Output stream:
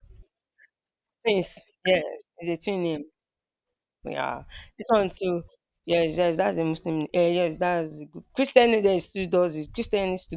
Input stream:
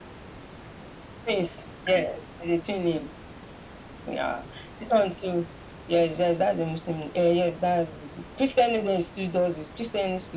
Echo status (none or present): present